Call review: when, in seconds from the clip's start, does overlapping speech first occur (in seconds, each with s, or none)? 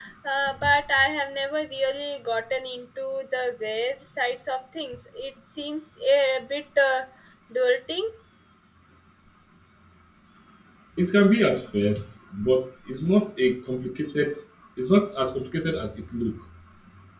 none